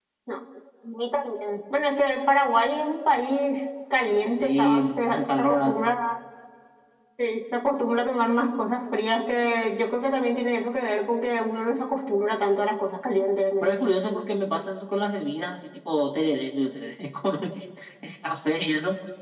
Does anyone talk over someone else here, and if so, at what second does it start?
4.4 s

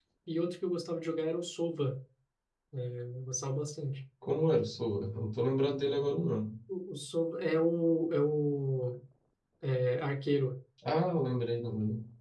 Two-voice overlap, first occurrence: none

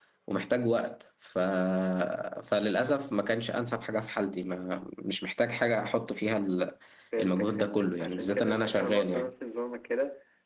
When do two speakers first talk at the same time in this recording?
7.2 s

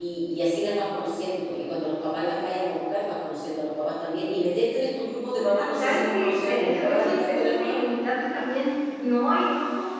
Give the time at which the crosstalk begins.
5.7 s

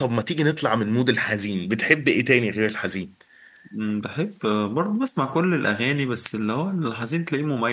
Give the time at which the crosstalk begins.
none

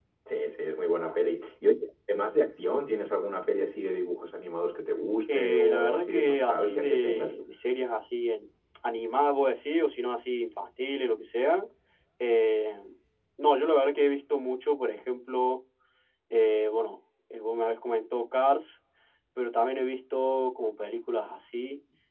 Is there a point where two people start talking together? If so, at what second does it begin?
5.3 s

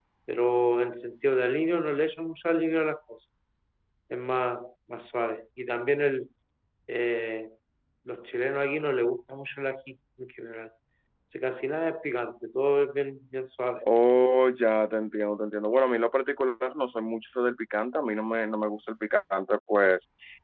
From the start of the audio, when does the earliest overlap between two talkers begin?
none

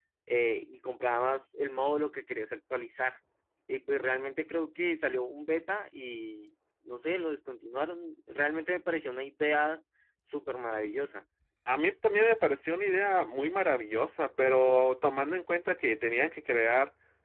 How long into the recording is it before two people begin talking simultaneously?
none

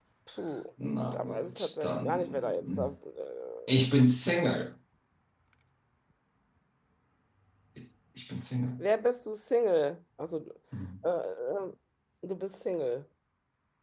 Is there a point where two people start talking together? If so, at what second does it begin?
1.1 s

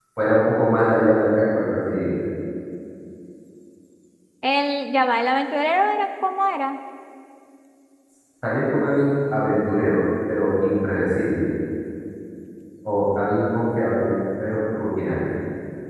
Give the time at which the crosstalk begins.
none

